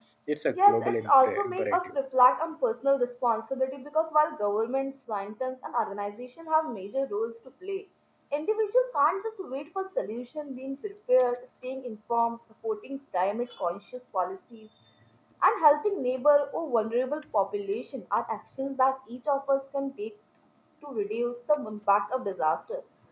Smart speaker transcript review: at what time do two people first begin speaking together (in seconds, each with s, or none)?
0.6 s